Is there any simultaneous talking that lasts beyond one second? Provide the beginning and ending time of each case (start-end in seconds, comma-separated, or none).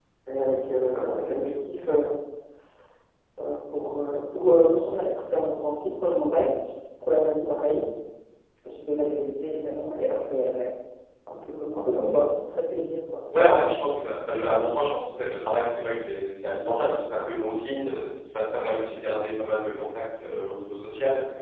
none